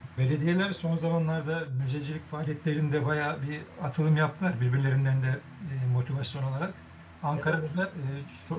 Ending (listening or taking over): listening